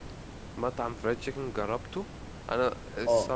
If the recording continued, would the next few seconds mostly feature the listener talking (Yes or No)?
No